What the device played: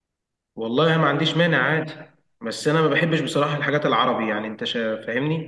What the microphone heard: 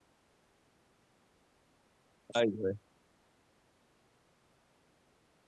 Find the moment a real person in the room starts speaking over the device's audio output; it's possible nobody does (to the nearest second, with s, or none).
2 s